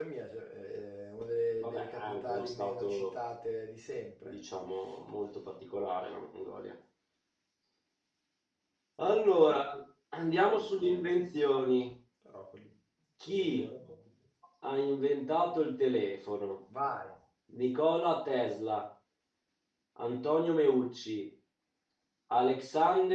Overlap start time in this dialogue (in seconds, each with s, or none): 1.6 s